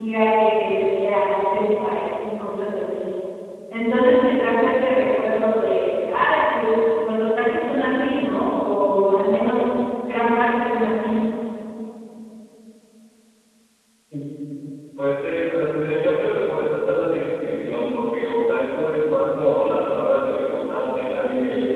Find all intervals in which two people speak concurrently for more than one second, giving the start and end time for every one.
none

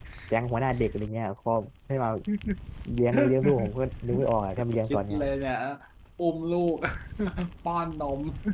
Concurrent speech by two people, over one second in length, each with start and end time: none

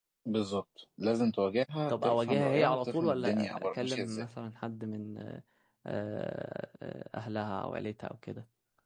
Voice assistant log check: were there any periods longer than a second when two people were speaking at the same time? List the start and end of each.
1.9-4.2

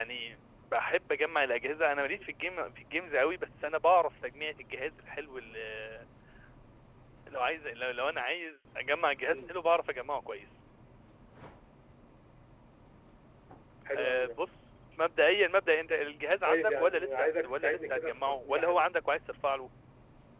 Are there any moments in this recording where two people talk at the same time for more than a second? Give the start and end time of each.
16.4-18.8

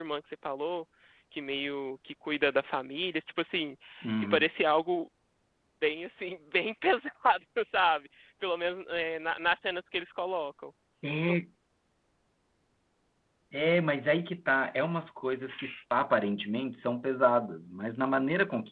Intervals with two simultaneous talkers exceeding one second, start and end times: none

